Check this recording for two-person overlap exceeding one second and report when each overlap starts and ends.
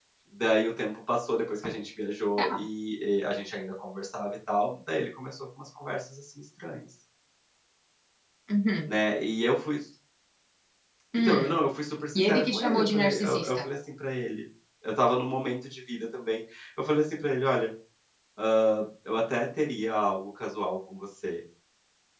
12.2-13.7

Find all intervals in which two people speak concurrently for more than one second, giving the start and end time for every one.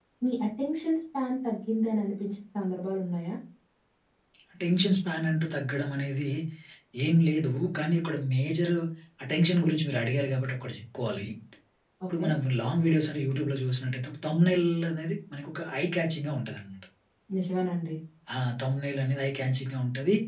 none

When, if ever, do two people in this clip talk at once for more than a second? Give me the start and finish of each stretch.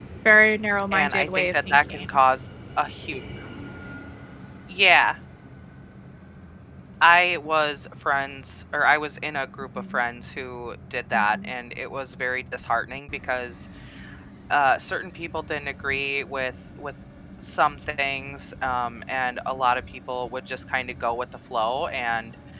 0.9-2.2

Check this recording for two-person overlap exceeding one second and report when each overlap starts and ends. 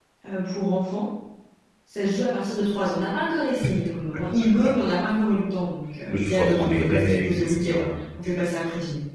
6.1-7.9

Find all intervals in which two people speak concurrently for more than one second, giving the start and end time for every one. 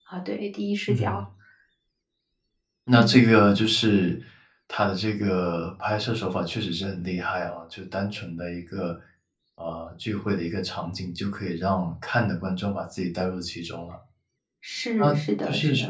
none

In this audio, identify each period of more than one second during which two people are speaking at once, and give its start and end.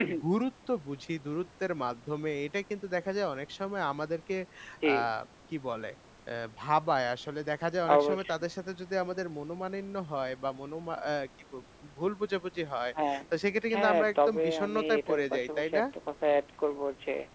13.7-15.8

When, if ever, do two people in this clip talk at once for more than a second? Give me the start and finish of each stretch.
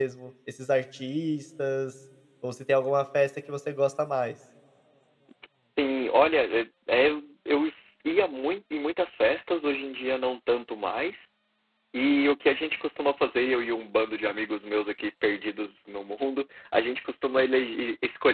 none

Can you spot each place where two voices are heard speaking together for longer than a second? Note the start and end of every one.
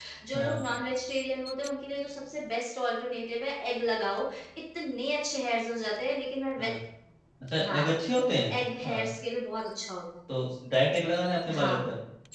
none

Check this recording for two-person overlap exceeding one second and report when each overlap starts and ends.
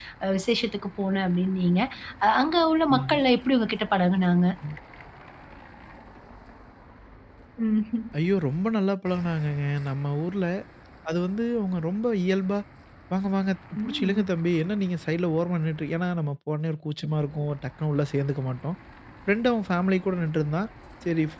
none

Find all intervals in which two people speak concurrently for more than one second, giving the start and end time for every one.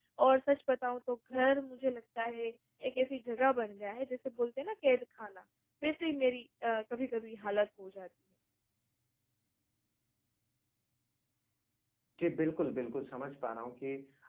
none

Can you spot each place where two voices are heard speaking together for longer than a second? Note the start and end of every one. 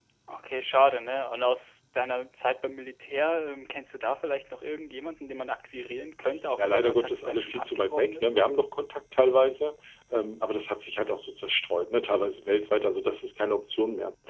6.6-8.3

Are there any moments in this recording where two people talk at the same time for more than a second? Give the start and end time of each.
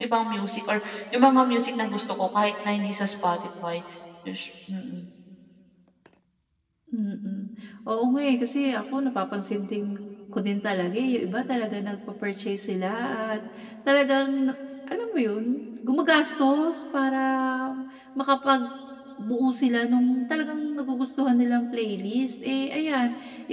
none

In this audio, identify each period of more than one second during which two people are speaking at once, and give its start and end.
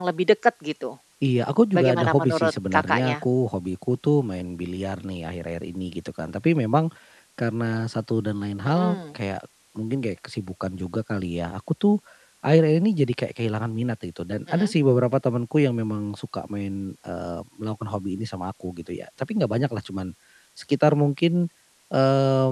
1.8-3.2

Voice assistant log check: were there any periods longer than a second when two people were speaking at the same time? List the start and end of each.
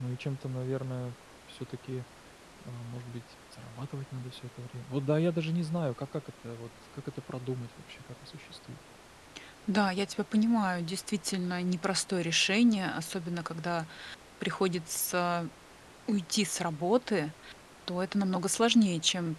none

